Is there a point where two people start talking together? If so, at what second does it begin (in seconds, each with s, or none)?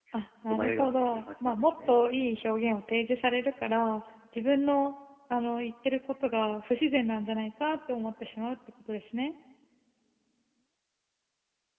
0.5 s